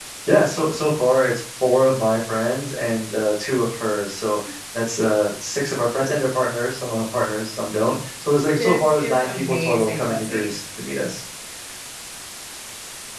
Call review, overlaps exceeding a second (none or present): present